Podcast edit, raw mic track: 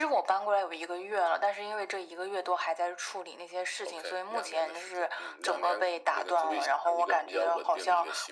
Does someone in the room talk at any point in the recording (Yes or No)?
No